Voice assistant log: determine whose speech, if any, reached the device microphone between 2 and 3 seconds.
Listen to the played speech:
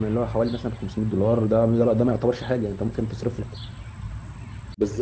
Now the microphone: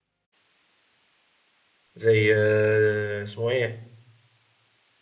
user only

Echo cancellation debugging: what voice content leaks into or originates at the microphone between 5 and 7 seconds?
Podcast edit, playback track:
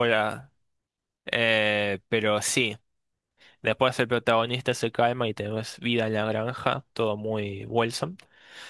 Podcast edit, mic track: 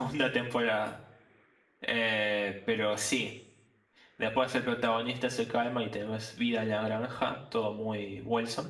echo only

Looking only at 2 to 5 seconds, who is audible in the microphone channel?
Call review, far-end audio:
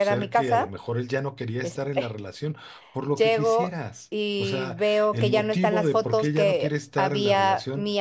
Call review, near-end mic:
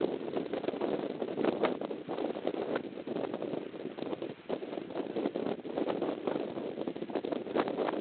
neither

